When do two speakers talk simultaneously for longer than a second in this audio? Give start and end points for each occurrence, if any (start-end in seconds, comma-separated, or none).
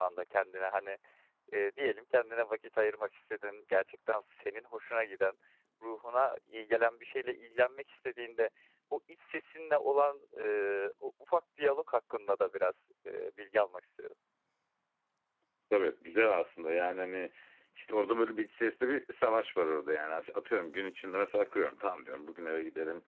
none